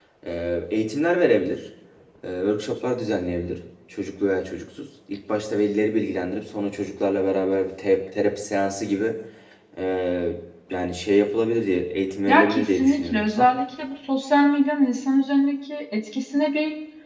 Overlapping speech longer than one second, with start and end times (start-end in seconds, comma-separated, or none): 12.3-13.5